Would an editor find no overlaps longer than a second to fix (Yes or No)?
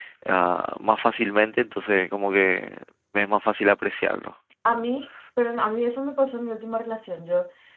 Yes